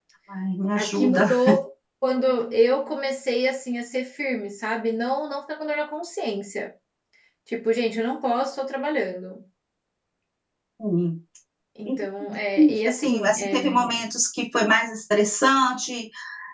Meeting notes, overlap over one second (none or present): present